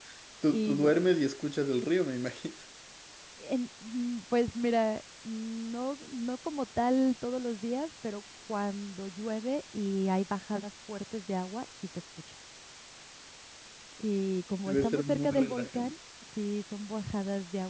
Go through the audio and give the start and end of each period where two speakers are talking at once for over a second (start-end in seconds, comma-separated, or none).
14.7-15.9